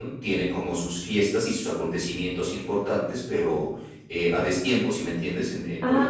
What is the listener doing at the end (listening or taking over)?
taking over